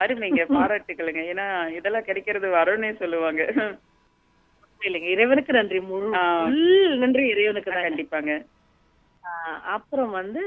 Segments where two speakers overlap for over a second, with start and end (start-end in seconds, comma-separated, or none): none